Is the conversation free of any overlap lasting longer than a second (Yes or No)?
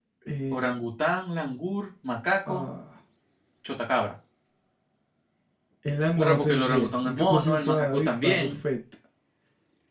No